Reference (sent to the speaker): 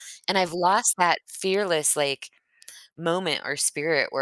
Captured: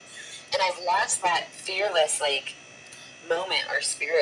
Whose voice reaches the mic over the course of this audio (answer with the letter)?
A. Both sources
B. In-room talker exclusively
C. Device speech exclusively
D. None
C